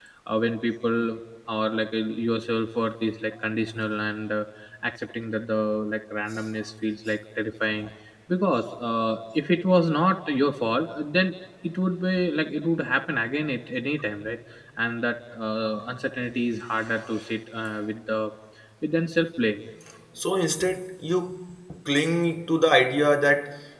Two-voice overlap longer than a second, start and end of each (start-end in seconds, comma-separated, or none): none